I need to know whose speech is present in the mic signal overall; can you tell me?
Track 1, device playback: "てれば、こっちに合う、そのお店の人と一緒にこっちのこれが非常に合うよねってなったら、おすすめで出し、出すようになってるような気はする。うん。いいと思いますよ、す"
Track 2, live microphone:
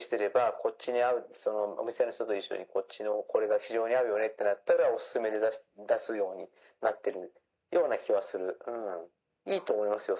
echo only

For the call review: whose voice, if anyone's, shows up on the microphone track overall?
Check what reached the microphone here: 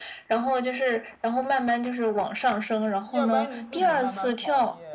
both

